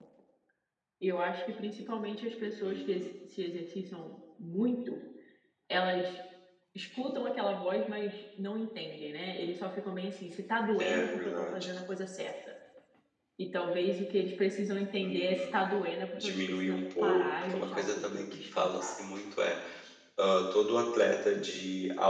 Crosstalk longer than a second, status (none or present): present